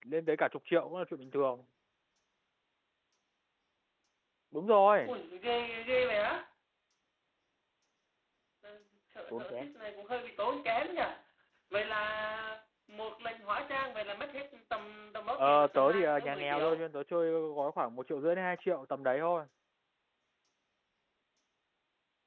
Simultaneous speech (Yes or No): Yes